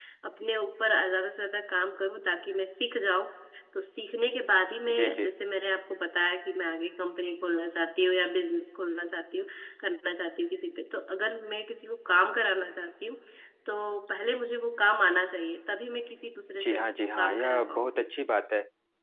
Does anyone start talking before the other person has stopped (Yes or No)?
Yes